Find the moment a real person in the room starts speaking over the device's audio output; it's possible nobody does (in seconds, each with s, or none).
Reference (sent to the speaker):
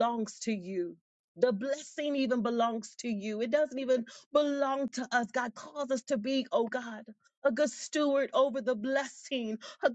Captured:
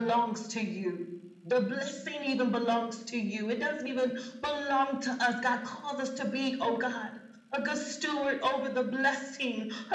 none